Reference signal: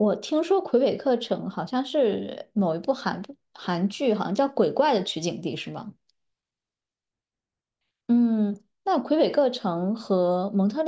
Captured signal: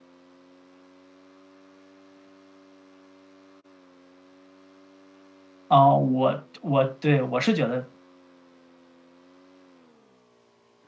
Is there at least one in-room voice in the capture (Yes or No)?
Yes